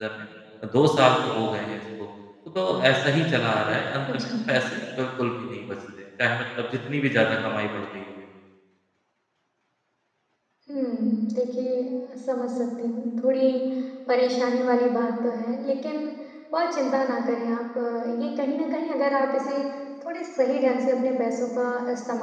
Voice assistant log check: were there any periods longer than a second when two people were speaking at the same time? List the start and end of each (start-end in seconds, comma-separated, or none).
none